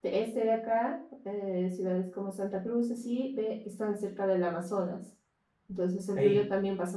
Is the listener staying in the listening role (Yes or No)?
Yes